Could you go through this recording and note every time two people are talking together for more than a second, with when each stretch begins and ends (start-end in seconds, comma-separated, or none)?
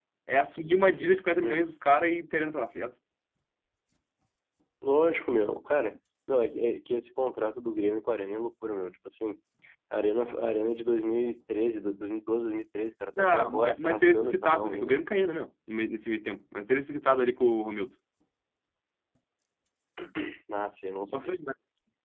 13.3-14.9